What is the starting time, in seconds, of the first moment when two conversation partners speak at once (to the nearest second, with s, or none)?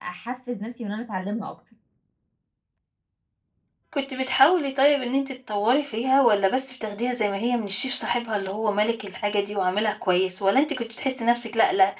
none